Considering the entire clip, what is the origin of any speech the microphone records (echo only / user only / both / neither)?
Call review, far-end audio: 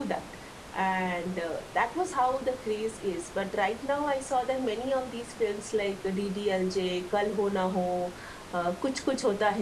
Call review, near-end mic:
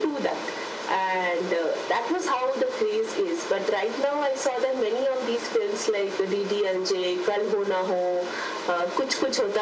echo only